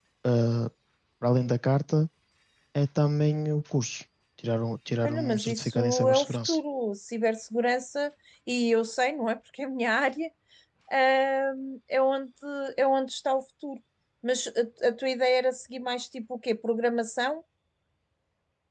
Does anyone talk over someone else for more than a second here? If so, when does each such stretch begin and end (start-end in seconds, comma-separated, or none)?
5.0-6.6